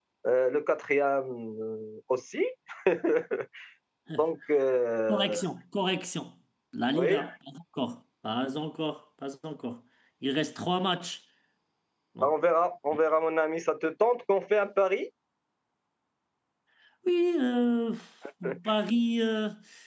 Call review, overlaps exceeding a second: none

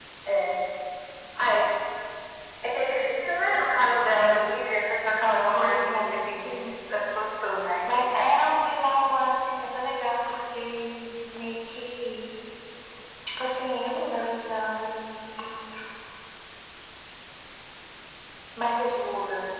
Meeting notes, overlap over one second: present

